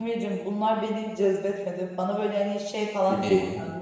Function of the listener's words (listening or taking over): listening